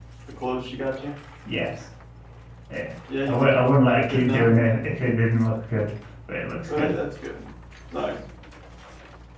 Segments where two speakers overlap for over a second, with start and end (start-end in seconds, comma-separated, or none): 3.2-4.5